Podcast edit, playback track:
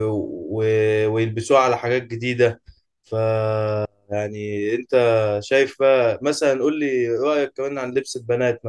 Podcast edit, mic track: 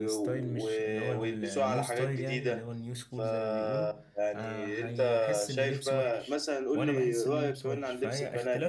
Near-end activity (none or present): present